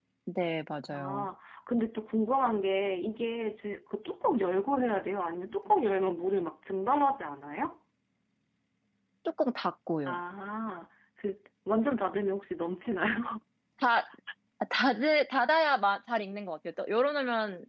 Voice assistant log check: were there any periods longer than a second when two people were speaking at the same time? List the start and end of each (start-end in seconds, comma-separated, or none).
none